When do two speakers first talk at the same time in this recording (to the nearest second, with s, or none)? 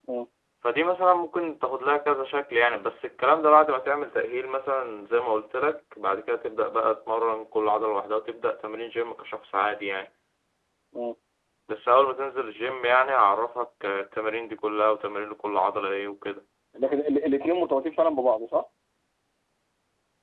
none